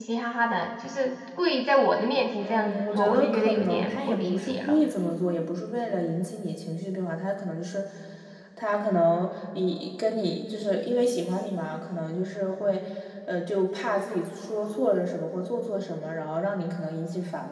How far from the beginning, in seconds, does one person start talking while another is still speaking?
2.4 s

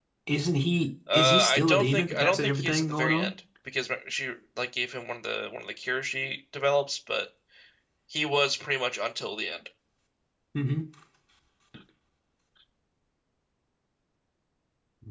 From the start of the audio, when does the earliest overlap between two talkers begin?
1.1 s

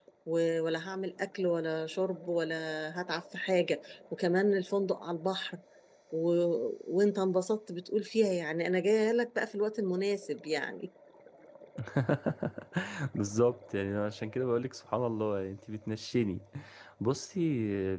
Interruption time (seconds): none

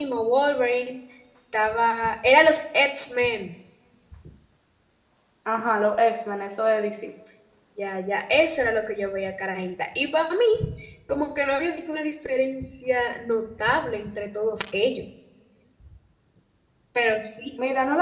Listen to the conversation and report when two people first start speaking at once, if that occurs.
none

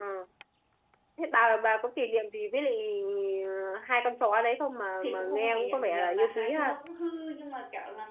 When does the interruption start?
5.0 s

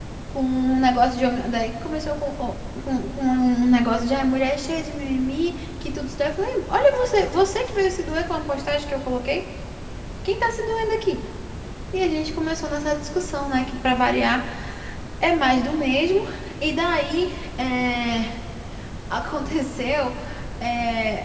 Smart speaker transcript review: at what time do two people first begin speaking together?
none

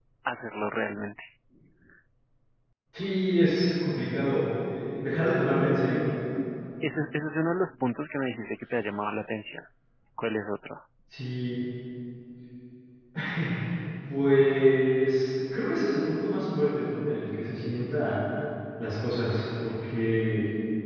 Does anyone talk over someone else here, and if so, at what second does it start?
none

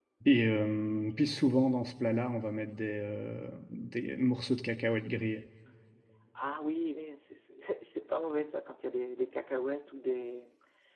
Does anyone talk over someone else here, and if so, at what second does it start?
none

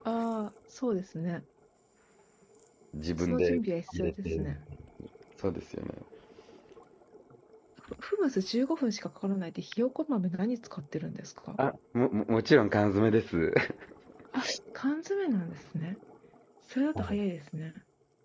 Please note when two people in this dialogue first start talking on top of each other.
3.2 s

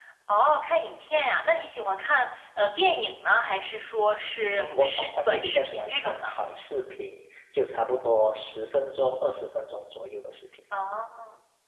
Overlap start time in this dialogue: 4.5 s

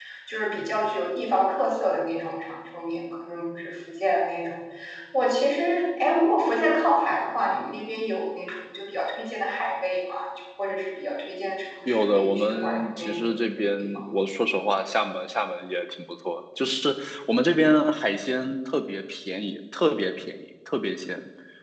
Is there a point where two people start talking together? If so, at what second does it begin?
11.8 s

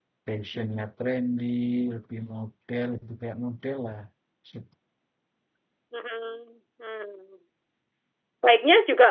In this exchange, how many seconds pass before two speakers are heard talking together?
none

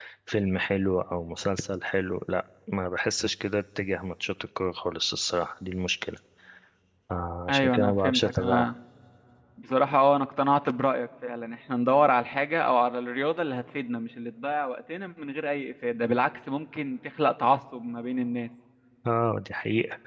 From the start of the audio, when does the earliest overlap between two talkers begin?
7.5 s

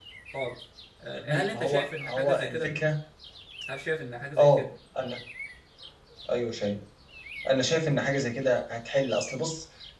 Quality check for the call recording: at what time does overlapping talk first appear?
1.1 s

